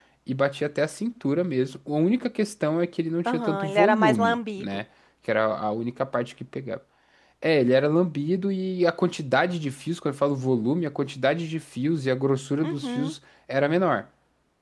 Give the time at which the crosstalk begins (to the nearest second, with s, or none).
3 s